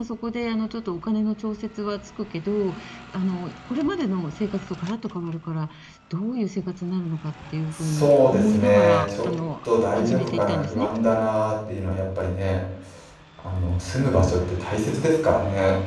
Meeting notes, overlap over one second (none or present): present